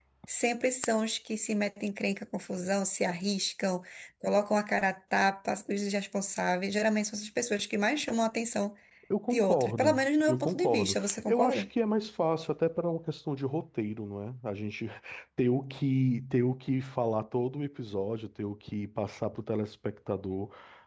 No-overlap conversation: No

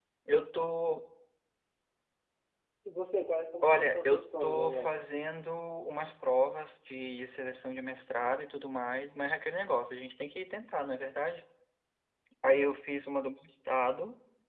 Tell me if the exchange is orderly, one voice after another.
No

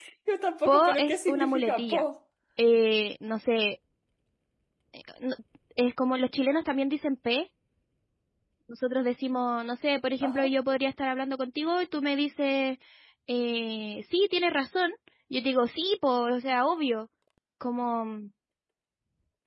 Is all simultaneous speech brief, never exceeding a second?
No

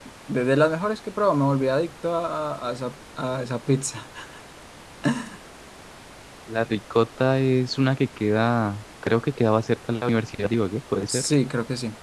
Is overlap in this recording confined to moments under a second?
Yes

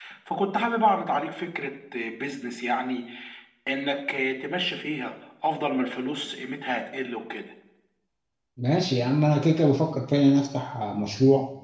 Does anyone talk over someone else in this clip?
No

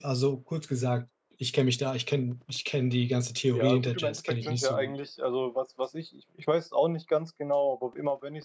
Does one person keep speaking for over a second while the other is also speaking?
Yes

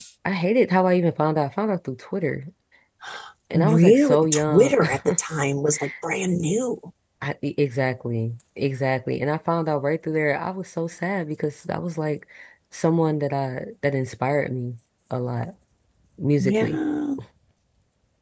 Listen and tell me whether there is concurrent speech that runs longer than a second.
Yes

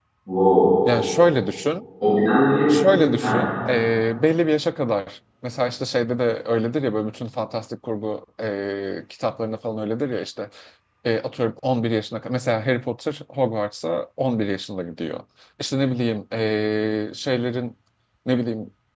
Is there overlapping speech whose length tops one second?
No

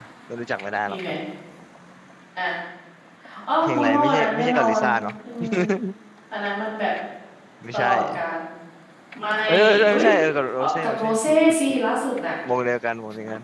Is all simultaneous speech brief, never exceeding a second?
No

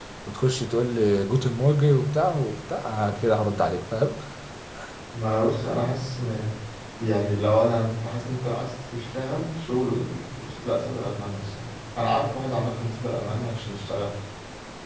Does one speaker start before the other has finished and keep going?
No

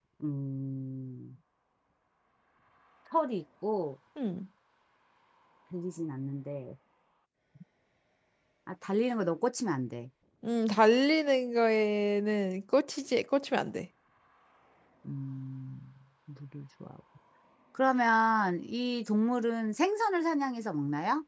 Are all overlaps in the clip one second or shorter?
Yes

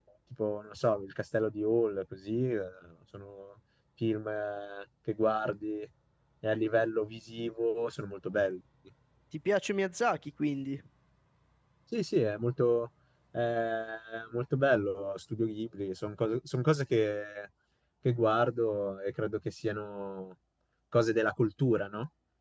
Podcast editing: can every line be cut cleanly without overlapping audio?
Yes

